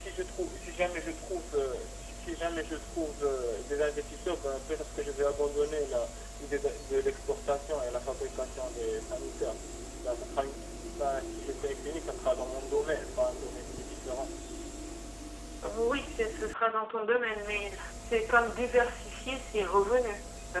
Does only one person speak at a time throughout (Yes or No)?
Yes